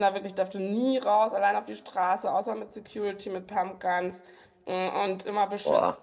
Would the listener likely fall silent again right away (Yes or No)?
Yes